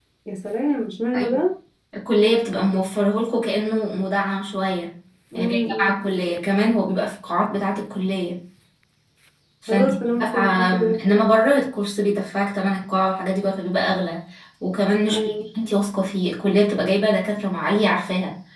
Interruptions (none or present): present